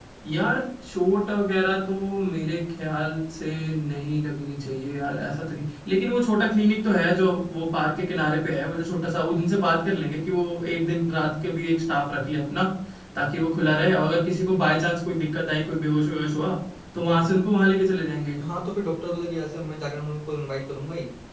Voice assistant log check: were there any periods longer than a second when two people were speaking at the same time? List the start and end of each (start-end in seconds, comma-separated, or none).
none